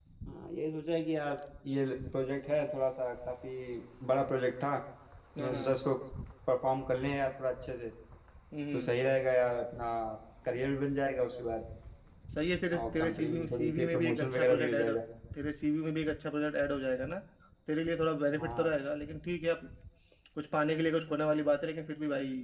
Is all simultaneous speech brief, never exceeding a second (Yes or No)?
No